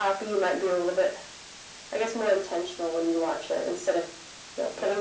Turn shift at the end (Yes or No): No